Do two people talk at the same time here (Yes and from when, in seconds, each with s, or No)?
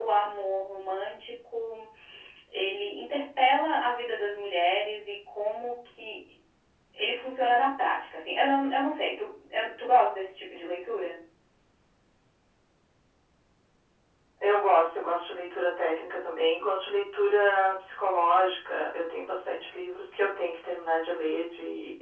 No